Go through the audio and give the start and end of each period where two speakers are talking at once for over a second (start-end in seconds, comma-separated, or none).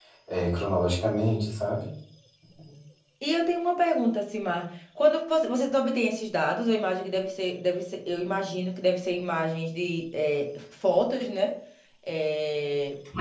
none